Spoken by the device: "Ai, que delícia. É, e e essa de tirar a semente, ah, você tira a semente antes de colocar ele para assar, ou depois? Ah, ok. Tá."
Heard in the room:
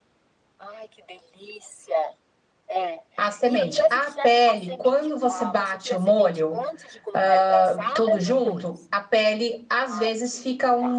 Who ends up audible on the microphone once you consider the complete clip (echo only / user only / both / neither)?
both